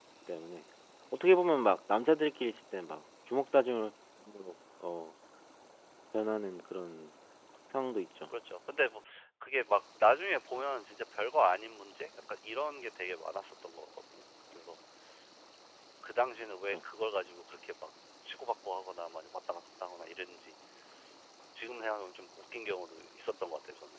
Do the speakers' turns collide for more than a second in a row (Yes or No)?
No